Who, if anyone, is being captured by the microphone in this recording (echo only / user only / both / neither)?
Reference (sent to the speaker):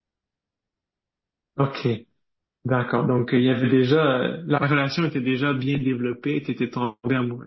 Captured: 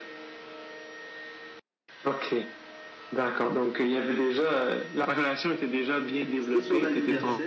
both